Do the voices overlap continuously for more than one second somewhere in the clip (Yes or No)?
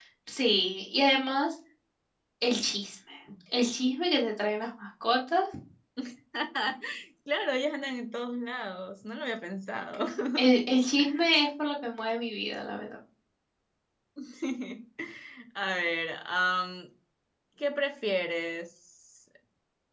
No